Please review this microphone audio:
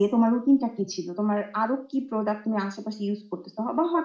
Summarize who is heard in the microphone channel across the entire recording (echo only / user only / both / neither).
echo only